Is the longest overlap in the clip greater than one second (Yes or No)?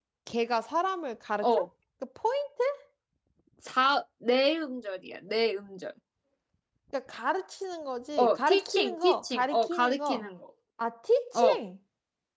Yes